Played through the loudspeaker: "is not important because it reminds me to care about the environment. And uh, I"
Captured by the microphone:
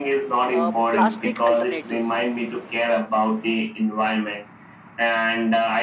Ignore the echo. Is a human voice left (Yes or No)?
Yes